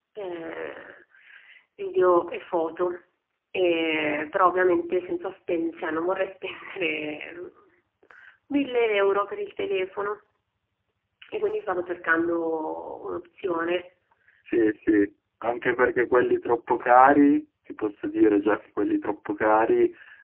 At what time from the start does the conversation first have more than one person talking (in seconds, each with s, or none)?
none